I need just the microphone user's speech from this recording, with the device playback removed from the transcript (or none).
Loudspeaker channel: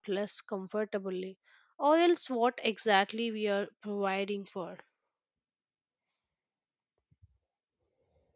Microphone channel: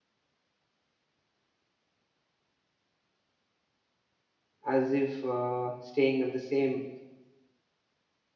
as if uh, staying at the same